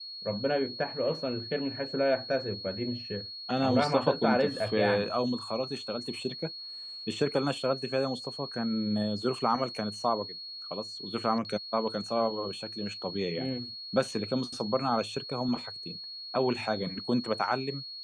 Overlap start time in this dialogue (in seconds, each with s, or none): 3.6 s